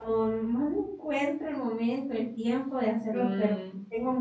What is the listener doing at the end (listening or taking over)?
listening